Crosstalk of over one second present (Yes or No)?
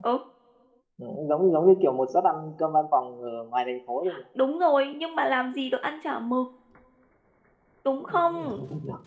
No